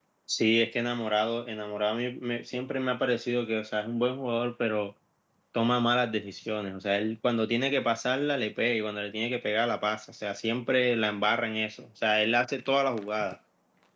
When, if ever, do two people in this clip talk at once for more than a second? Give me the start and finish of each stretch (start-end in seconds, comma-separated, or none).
none